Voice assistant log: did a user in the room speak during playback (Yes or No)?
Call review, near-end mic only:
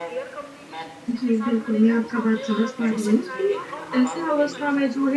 Yes